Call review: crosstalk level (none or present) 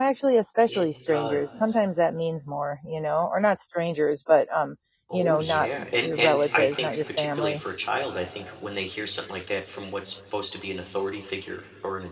present